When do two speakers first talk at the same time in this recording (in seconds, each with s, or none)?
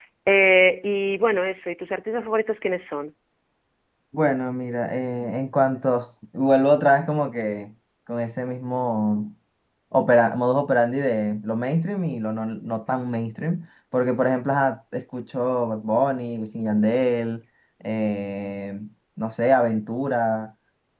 none